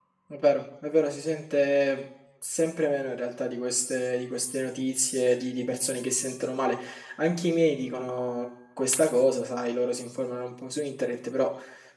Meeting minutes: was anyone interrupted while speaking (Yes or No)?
No